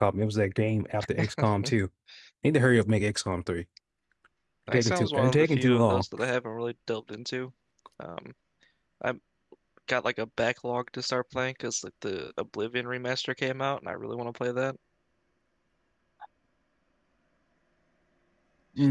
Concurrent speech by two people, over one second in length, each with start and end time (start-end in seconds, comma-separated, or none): 4.7-6.0